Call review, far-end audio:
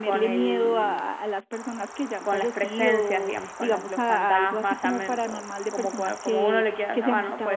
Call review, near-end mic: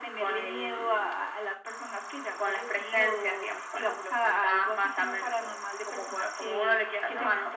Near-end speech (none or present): none